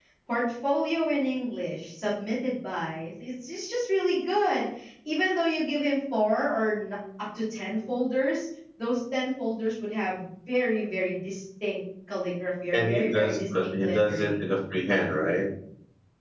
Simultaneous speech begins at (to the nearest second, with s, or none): 13 s